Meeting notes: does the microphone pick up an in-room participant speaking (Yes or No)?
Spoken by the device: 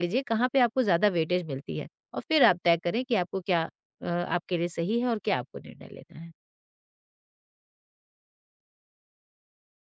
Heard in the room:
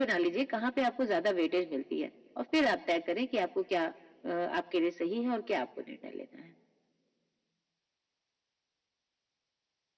No